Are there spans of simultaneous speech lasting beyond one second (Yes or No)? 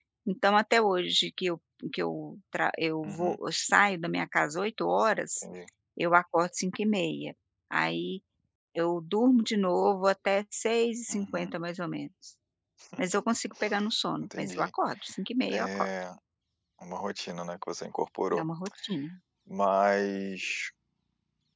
No